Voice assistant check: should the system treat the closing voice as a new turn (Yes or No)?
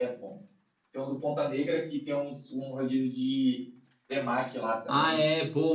Yes